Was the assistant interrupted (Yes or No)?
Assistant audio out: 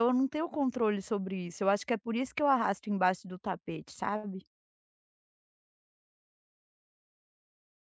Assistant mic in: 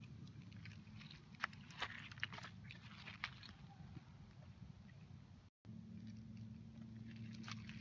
No